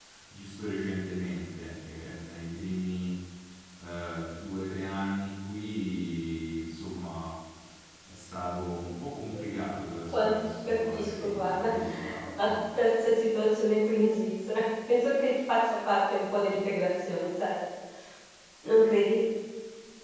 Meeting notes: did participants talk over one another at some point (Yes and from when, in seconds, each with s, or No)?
Yes, from 10.1 s